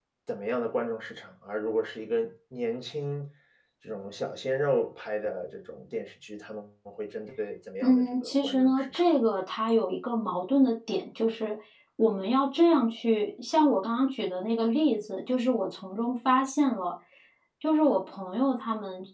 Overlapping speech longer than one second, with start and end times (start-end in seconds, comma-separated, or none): 7.8-9.0